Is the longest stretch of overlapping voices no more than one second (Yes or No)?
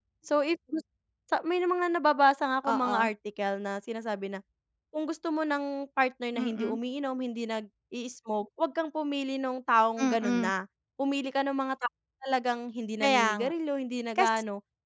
Yes